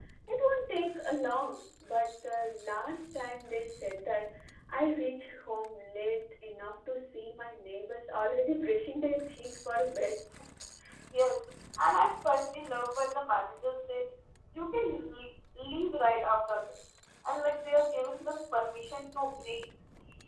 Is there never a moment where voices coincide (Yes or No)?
Yes